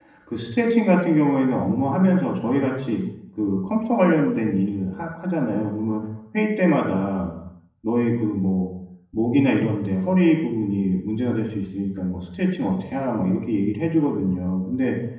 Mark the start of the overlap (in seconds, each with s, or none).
none